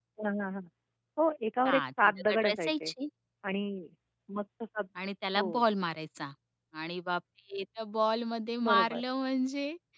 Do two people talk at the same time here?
Yes, from 1.7 s

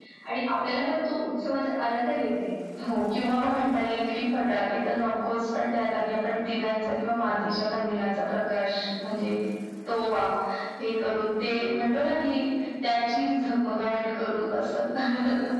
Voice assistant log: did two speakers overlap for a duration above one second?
No

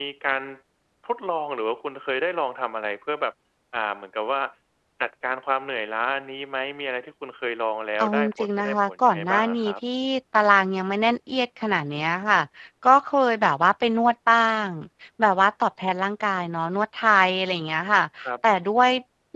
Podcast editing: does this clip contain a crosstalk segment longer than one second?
Yes, from 8.0 s

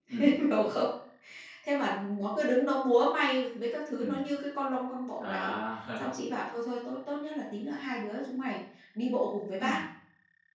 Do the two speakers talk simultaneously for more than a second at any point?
No

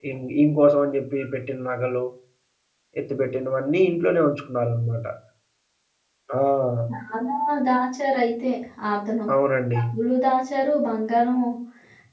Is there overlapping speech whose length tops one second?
No

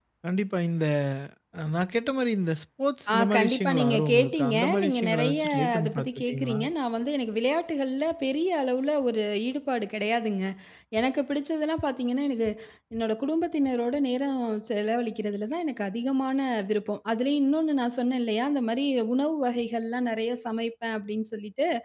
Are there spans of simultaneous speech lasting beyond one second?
Yes, from 3.1 s

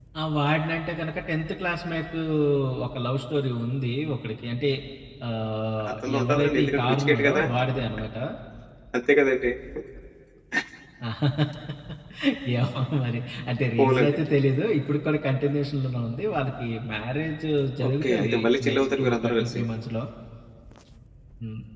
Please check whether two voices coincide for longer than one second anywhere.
Yes, from 5.9 s

